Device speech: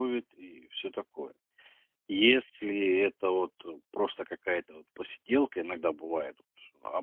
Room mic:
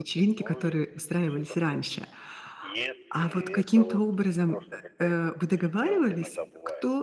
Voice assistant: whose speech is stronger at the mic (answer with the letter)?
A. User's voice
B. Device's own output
A